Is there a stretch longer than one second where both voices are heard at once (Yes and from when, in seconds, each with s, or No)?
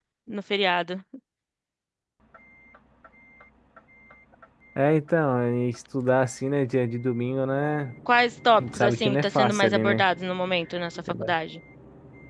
Yes, from 8.6 s